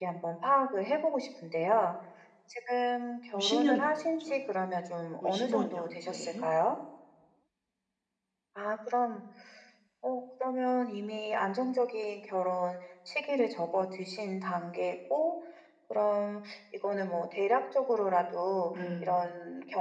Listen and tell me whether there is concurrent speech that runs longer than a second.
Yes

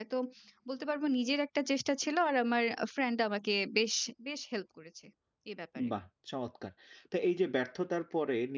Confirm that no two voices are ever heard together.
Yes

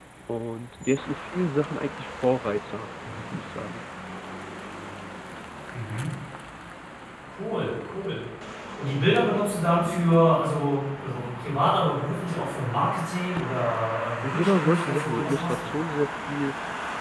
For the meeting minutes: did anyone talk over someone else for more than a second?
Yes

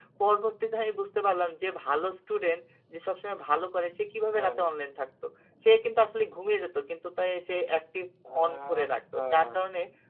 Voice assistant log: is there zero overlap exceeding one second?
No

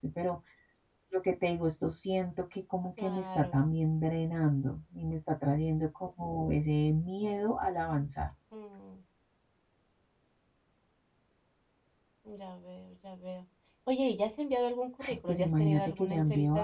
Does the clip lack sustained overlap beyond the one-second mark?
No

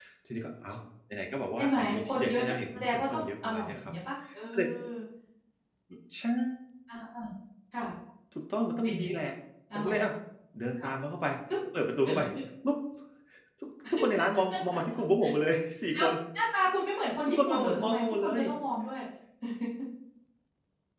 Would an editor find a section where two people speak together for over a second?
Yes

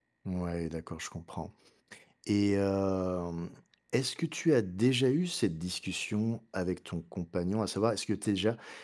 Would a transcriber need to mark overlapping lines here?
No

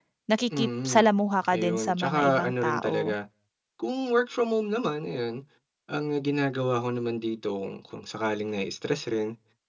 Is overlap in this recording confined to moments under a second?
No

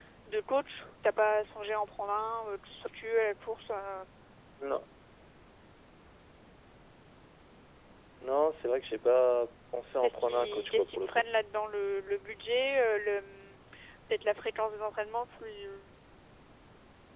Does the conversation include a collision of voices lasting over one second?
Yes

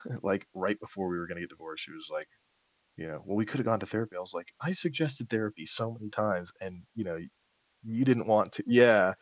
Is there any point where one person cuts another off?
No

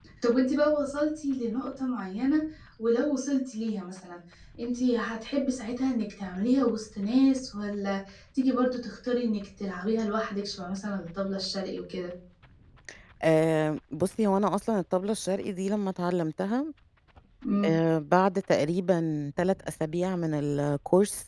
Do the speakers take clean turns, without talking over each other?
Yes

